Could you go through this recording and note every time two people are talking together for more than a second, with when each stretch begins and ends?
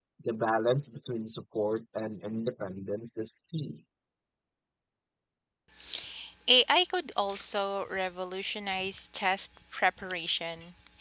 none

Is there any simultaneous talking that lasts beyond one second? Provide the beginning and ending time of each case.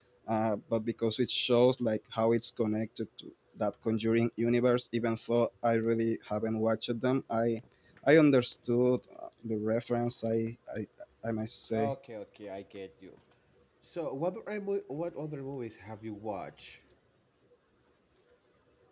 none

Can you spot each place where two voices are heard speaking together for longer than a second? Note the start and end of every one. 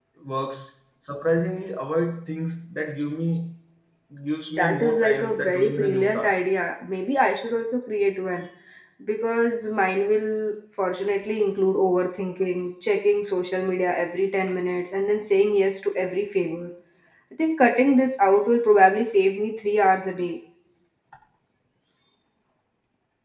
4.6-6.4

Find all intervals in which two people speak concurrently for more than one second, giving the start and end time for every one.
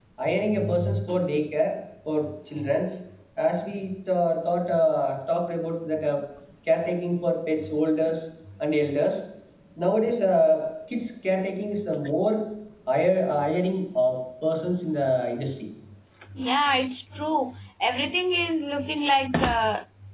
none

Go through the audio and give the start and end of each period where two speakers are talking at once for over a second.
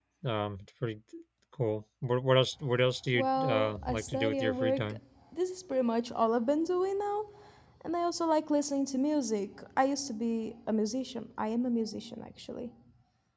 3.1-4.9

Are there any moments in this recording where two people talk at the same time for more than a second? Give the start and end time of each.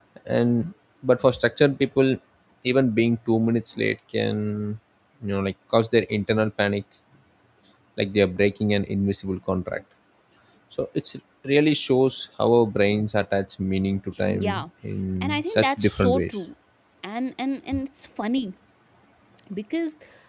15.2-16.4

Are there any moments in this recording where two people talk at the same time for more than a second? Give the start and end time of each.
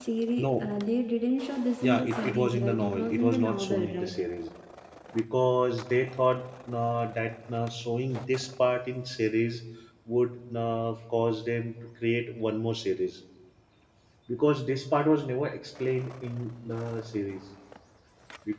1.8-4.1

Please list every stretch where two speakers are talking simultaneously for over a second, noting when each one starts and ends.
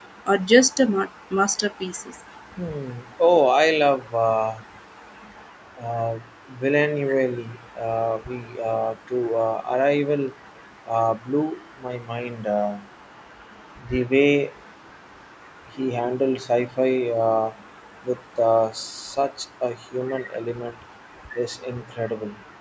none

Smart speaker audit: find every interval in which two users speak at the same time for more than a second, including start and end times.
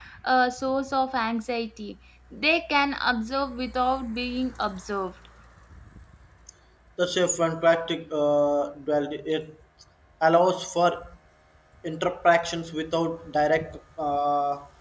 none

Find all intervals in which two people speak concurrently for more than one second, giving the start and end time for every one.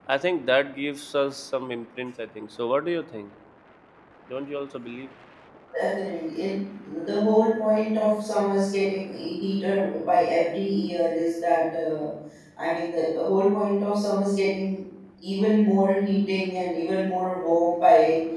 none

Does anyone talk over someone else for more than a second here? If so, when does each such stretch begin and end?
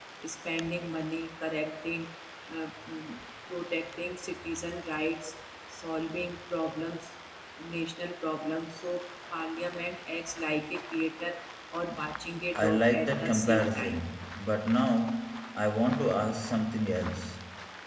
12.6-14.2

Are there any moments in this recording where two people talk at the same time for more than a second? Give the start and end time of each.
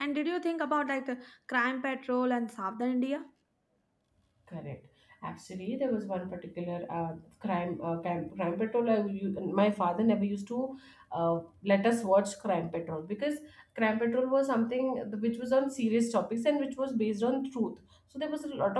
none

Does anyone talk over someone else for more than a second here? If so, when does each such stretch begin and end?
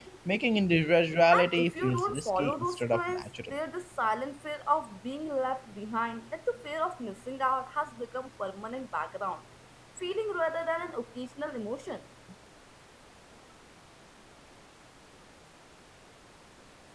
1.3-3.5

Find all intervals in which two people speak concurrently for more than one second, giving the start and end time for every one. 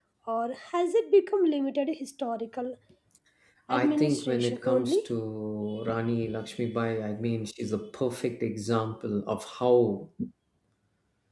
3.7-5.1

